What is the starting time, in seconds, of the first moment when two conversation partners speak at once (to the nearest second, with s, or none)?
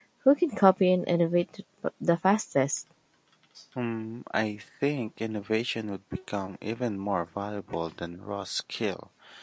none